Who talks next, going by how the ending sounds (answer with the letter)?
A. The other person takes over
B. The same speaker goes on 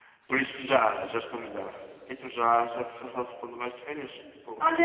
A